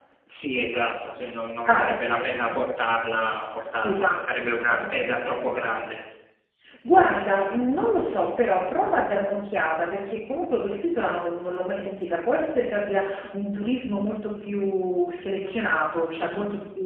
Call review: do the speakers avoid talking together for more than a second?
No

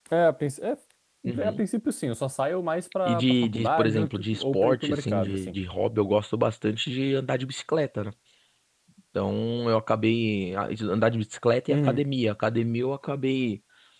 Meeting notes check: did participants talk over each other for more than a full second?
Yes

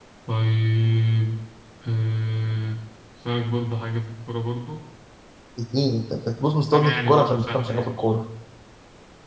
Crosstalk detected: Yes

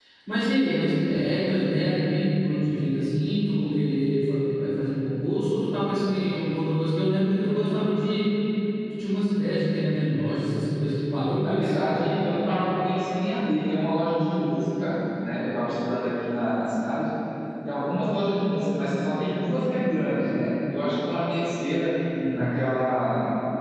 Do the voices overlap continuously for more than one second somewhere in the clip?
No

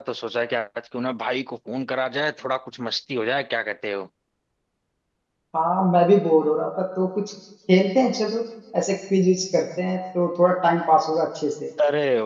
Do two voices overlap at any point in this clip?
No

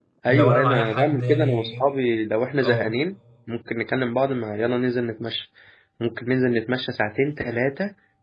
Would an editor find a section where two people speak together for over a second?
Yes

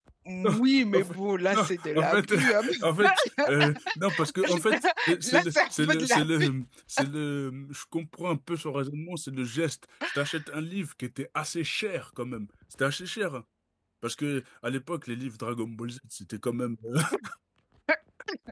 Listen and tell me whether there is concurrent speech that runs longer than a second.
Yes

